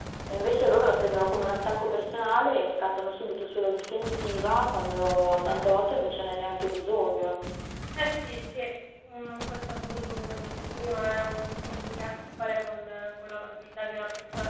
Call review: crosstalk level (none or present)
none